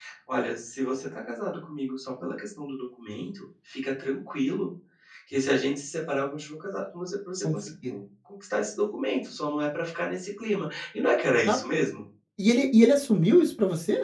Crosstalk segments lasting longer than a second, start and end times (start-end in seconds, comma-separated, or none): none